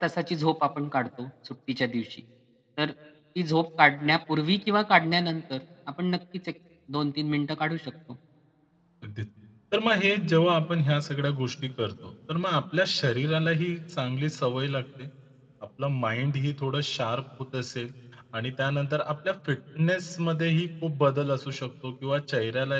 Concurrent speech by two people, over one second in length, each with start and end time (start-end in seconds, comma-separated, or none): none